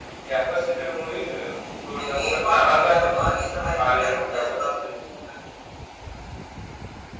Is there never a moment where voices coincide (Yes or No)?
No